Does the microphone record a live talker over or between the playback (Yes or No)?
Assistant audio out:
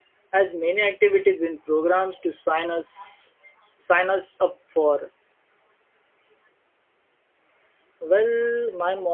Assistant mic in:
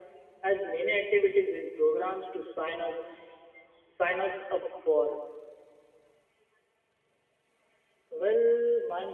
No